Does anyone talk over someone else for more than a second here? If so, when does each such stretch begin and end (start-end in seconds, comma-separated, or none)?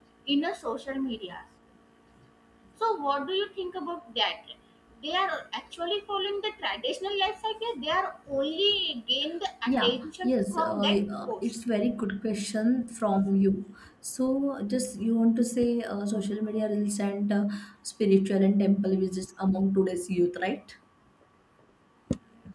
9.7-11.4